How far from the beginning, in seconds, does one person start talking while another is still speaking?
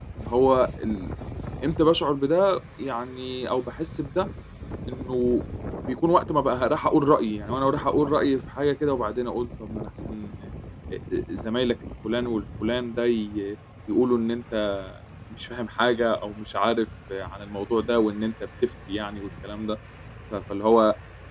none

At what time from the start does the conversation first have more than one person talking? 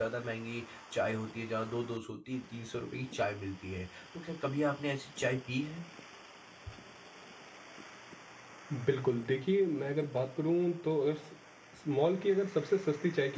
none

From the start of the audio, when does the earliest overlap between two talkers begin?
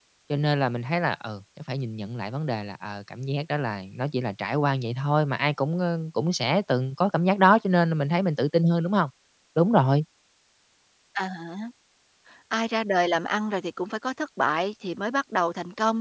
none

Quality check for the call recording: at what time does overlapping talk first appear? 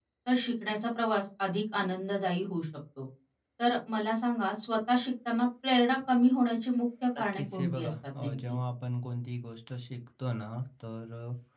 7.2 s

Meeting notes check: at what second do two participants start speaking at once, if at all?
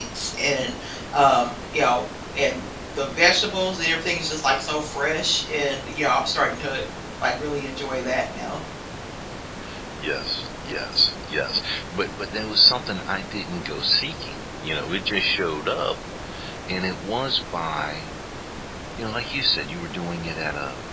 none

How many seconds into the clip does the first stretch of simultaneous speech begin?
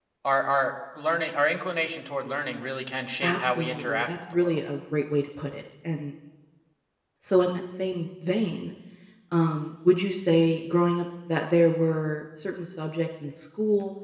3.2 s

